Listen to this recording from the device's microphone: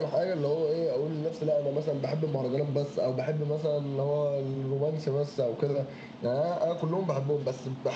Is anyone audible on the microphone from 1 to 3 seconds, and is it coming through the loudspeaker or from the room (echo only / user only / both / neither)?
echo only